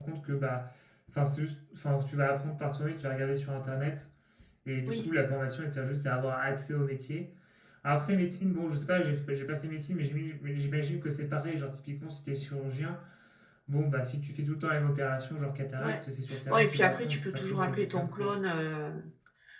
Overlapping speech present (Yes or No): Yes